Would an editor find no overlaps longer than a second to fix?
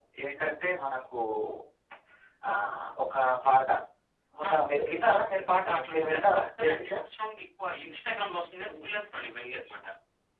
No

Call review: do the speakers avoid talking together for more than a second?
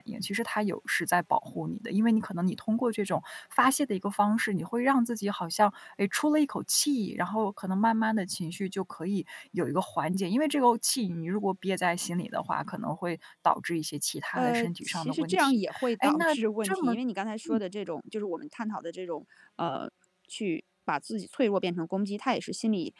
No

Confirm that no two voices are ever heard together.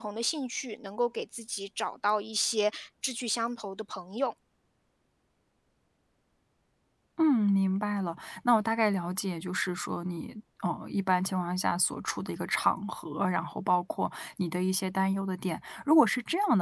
Yes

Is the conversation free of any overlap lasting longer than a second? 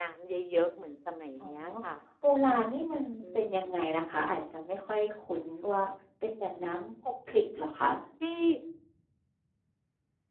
Yes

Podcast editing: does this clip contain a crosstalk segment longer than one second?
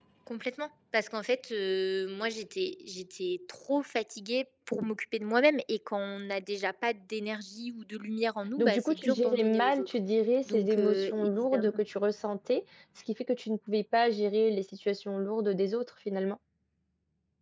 Yes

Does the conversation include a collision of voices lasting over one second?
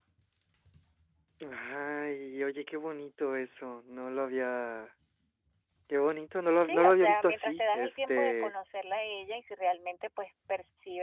Yes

